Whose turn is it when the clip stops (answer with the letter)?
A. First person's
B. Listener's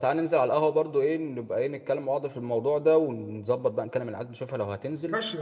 B